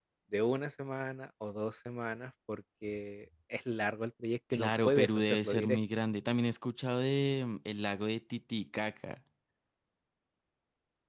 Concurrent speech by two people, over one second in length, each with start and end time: 4.5-5.8

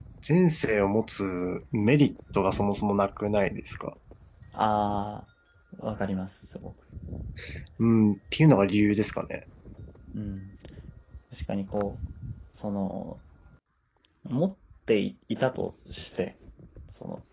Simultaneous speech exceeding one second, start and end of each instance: none

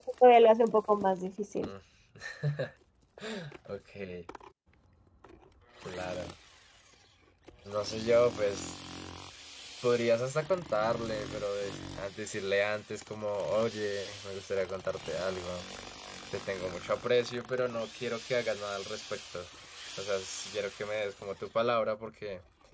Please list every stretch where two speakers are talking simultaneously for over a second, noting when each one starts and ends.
none

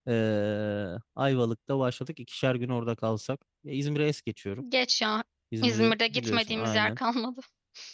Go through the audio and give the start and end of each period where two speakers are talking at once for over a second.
5.6-7.0

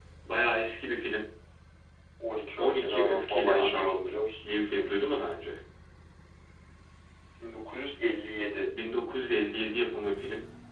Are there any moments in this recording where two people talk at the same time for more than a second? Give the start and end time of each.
2.6-3.9

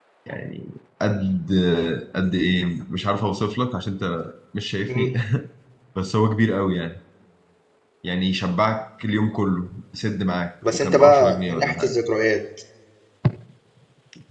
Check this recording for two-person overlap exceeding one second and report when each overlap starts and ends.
10.7-11.9

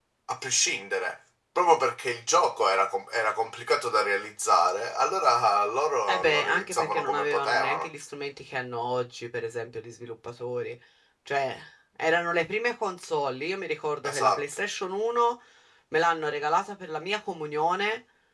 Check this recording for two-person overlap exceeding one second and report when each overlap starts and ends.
6.1-7.9

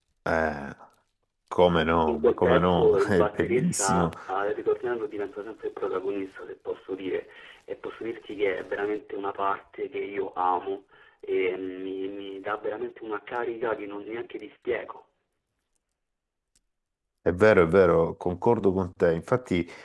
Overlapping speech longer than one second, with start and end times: 2.1-4.1

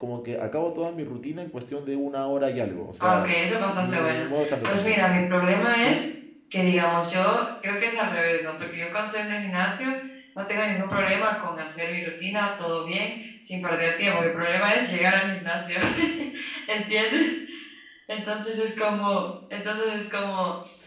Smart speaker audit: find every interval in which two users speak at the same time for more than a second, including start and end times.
3.8-5.1

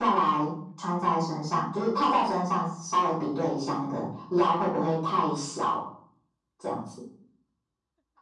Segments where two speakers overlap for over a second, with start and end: none

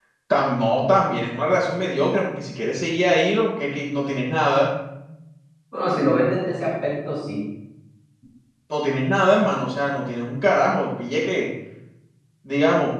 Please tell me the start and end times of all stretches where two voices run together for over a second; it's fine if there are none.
none

